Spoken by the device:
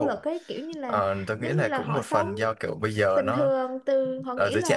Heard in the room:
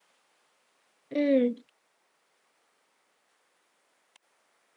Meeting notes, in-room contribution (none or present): present